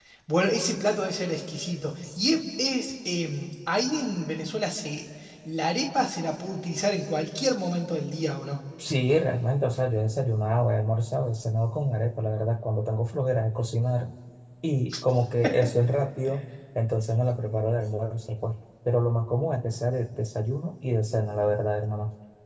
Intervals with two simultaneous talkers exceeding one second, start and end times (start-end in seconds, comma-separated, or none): none